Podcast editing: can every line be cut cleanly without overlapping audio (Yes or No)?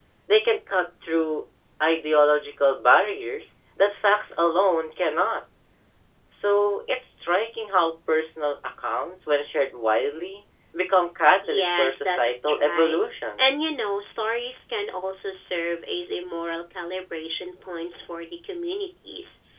No